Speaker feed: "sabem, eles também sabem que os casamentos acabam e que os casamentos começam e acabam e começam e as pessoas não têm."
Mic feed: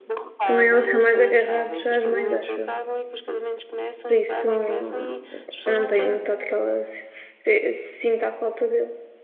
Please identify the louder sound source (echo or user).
user